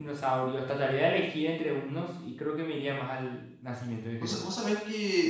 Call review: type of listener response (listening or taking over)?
taking over